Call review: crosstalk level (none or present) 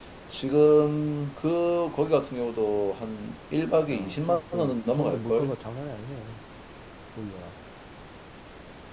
present